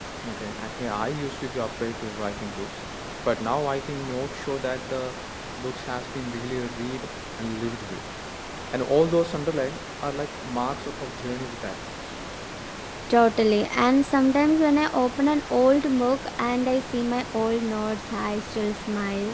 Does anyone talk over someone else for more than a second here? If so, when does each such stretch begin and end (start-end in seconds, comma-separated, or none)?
none